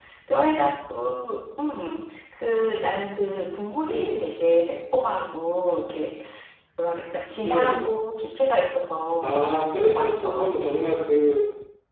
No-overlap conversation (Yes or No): No